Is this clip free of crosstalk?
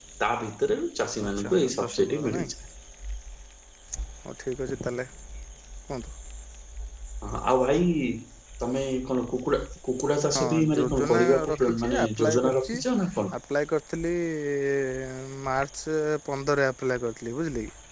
No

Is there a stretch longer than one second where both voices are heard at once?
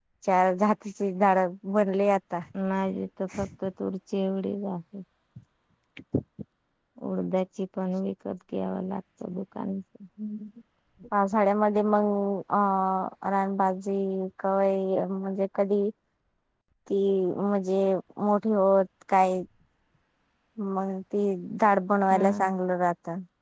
No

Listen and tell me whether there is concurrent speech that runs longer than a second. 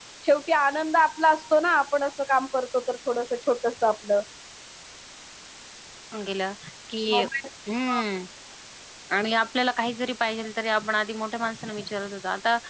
No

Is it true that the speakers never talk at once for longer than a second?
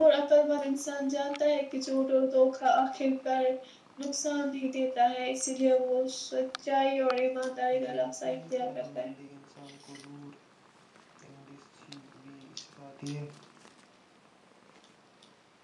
No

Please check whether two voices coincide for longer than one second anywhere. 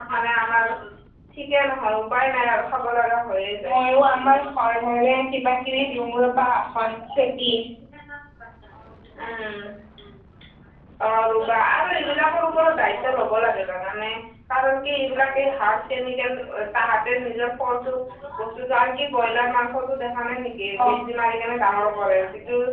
No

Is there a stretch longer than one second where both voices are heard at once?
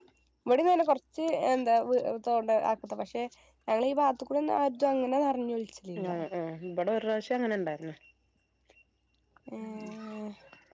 No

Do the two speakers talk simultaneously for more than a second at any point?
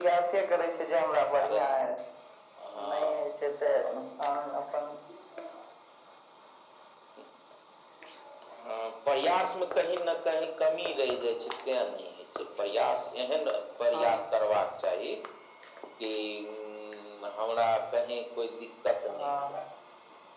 No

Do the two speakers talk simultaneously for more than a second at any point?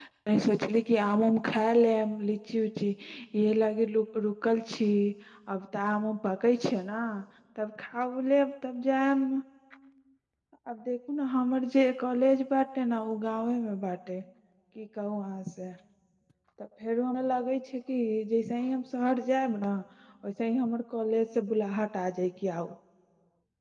No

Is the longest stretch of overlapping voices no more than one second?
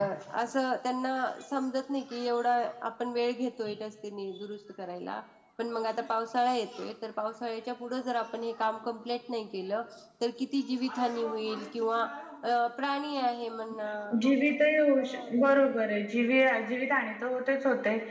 Yes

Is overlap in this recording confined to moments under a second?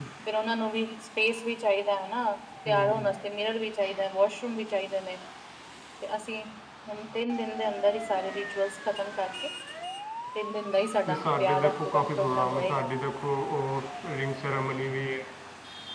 No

